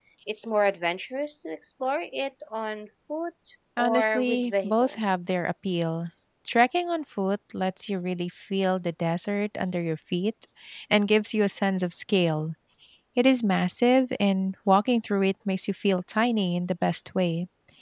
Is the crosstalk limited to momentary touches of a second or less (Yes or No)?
No